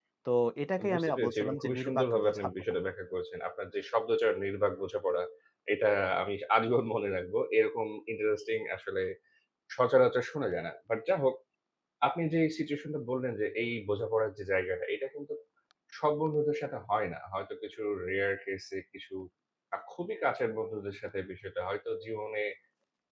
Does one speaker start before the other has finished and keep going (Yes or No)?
Yes